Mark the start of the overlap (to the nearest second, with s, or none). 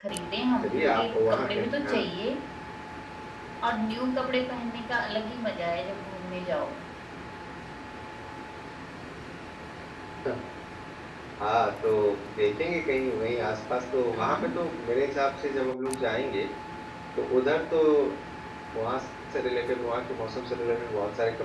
1 s